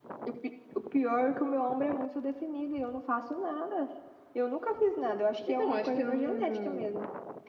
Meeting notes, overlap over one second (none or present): present